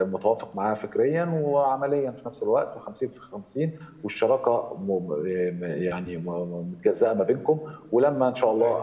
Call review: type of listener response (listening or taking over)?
listening